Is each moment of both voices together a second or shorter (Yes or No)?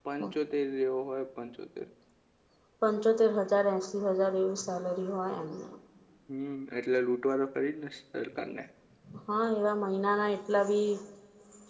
Yes